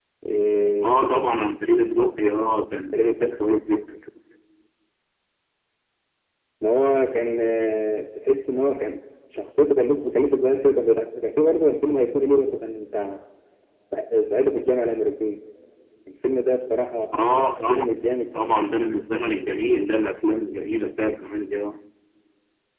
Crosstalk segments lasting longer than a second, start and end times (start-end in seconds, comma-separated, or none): none